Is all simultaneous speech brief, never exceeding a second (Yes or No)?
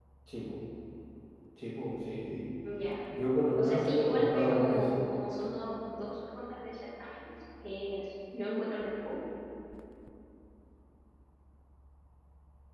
No